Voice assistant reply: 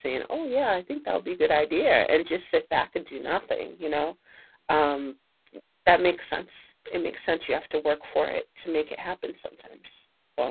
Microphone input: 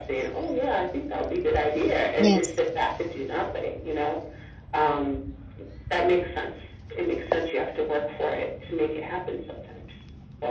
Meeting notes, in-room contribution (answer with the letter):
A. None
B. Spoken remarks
B